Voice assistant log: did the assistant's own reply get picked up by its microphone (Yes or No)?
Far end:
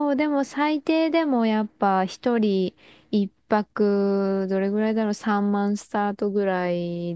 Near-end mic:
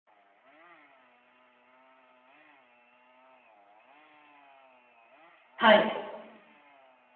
No